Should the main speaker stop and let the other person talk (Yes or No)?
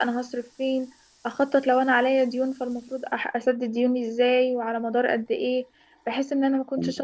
No